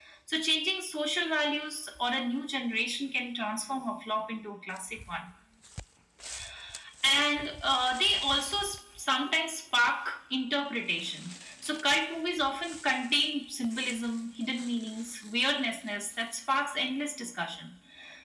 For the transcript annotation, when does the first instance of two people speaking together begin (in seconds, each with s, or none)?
none